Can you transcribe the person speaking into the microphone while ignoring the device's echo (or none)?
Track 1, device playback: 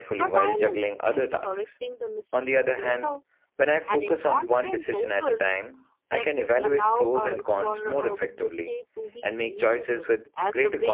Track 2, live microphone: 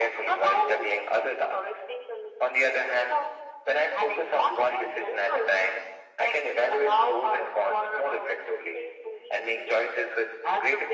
none